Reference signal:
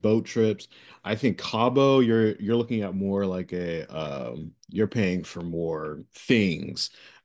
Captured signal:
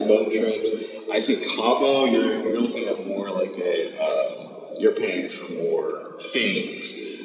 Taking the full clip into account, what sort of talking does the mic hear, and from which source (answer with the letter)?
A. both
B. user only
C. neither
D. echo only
D